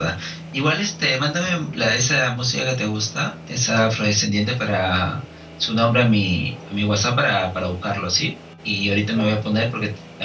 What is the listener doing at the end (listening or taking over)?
listening